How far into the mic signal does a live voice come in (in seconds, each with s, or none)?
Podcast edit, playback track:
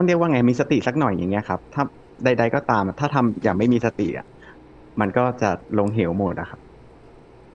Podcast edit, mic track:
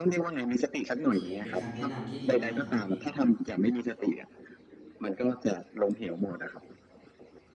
1.0 s